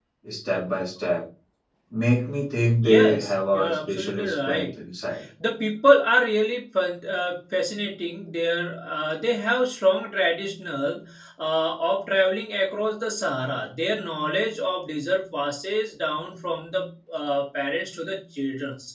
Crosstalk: present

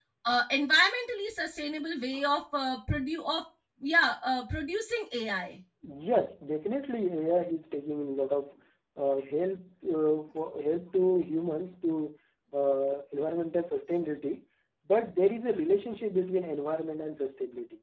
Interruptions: none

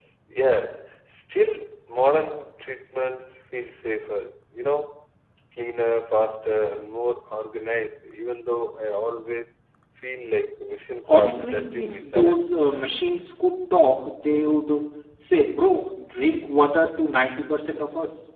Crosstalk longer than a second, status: present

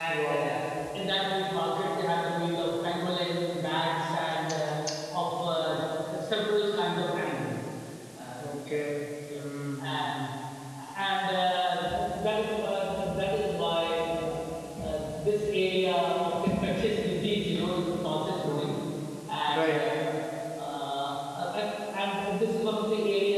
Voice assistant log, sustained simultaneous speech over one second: none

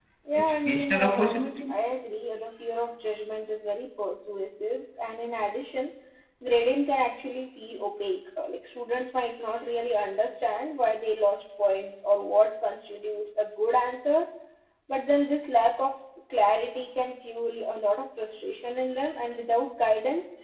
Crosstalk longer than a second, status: present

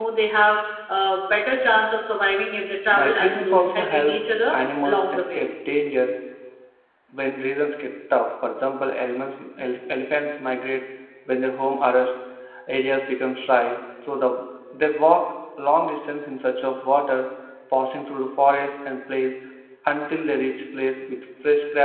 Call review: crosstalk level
present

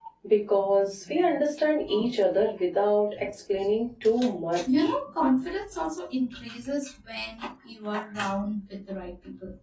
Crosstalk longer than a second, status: none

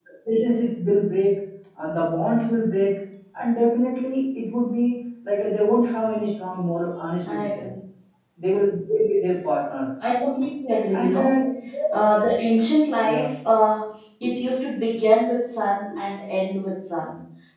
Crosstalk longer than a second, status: none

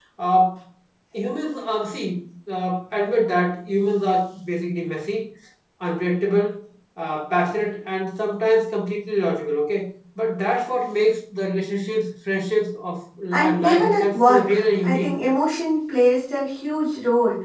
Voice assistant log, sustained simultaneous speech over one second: present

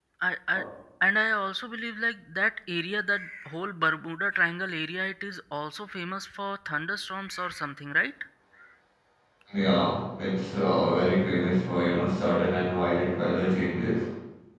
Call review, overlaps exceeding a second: none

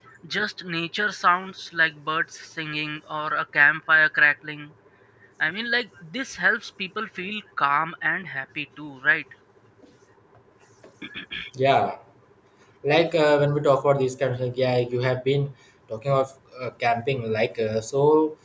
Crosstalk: none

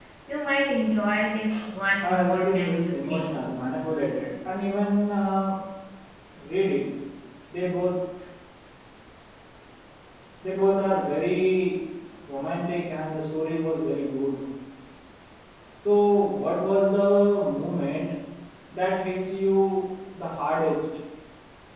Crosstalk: present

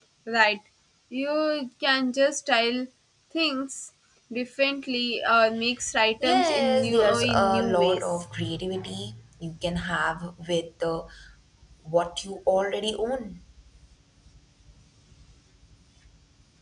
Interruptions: present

